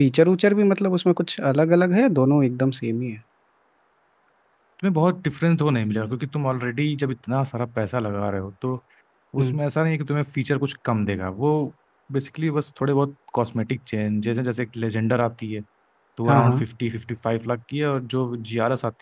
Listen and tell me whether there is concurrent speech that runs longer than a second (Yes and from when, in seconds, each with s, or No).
No